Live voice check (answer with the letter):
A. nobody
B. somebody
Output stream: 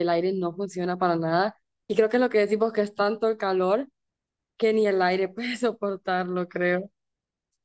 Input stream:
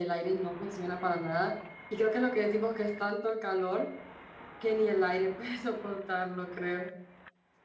A